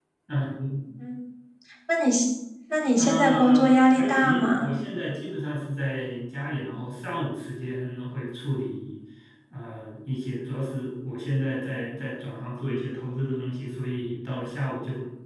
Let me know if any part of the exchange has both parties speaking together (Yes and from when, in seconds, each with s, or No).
Yes, from 3.0 s